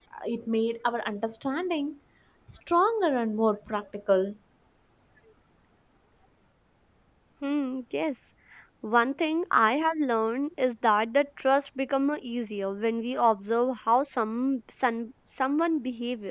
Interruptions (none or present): none